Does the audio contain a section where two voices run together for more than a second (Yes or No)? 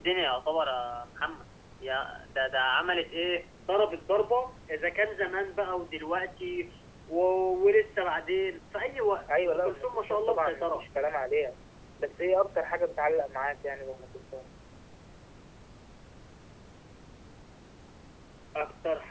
Yes